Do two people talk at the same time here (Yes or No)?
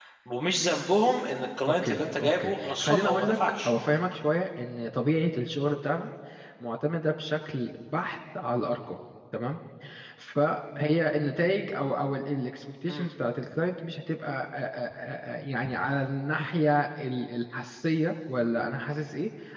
Yes